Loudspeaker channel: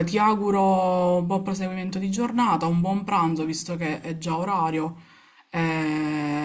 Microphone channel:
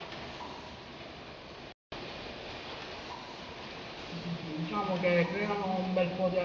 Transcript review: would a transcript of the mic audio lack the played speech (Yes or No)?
Yes